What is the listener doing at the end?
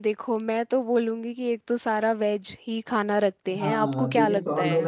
taking over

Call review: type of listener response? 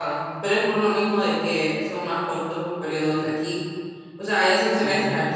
listening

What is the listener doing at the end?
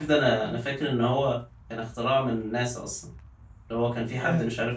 listening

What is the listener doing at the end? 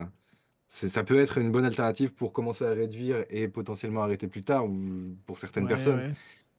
listening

